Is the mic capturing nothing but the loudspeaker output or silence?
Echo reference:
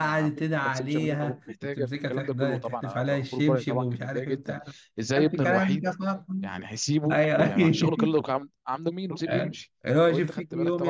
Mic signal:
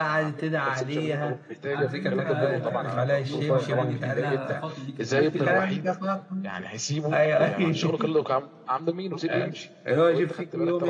No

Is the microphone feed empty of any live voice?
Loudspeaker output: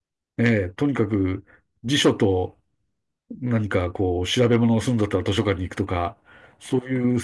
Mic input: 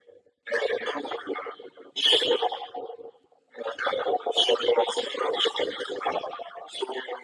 Yes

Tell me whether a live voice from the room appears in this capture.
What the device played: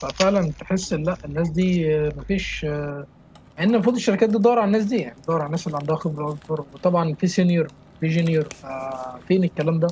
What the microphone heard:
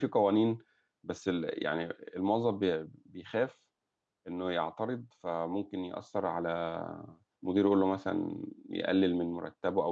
Yes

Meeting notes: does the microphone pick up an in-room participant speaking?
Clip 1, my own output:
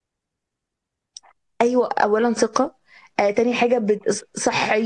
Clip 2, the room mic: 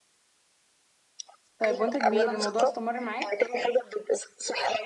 Yes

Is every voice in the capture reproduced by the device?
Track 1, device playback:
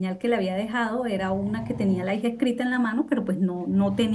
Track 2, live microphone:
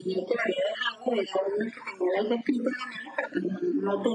Yes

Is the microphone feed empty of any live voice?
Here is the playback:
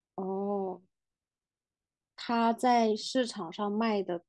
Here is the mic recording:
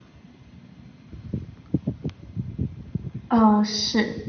No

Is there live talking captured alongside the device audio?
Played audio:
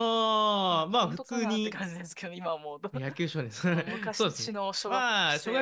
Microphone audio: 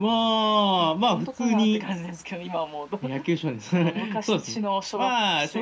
No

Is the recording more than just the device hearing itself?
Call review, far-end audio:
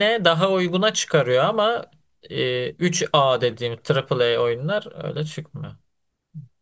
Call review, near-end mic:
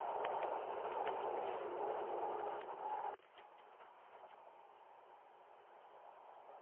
No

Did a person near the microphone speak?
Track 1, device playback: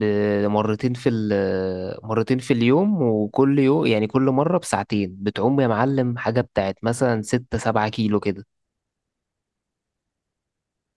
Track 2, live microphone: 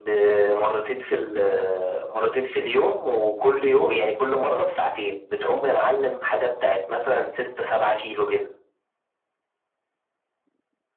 No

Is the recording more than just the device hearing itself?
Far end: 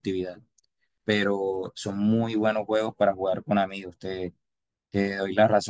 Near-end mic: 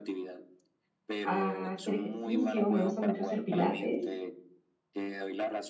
Yes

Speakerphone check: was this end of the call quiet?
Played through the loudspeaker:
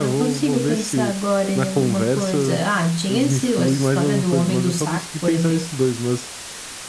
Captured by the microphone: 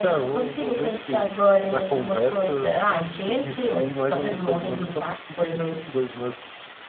Yes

